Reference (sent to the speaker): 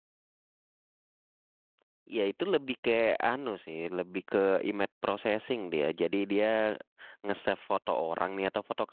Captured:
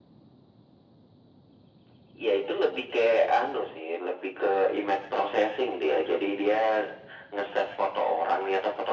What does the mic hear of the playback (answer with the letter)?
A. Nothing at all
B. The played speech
B